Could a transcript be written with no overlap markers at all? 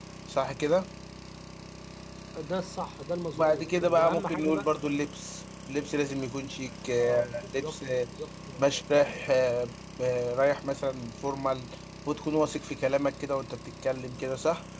No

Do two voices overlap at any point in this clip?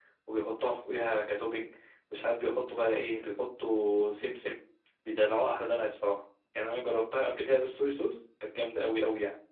No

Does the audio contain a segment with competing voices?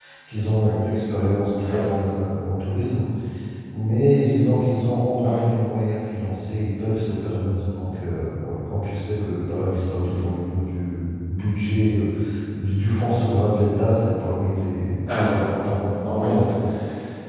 Yes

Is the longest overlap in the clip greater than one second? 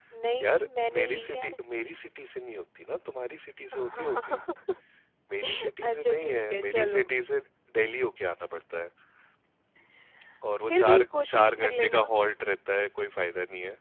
Yes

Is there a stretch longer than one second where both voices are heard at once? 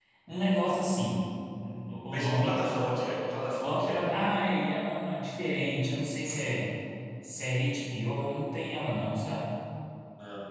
No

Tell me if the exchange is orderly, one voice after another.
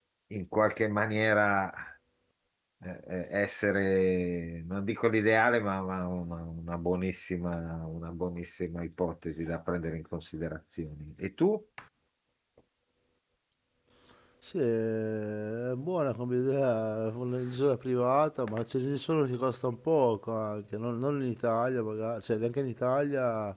Yes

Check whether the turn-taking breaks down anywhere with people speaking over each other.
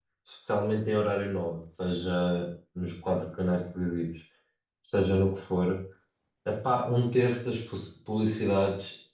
No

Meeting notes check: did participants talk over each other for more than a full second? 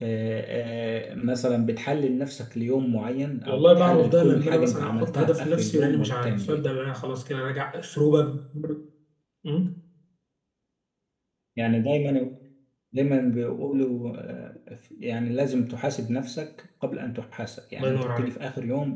Yes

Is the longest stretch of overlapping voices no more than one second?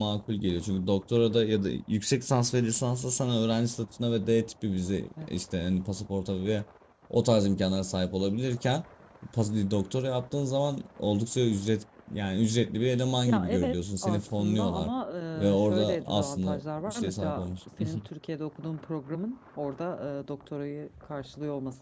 No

